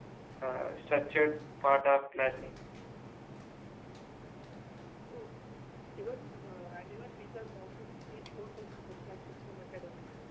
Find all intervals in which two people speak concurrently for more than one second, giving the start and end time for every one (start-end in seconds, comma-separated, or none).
none